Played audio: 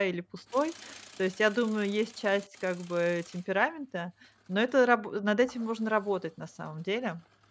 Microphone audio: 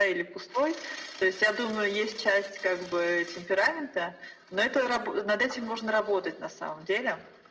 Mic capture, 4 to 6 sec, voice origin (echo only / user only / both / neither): echo only